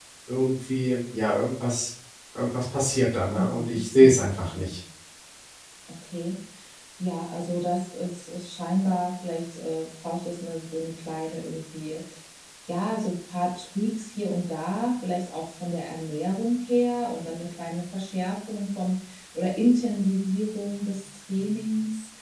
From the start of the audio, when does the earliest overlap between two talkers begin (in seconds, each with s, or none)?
3.4 s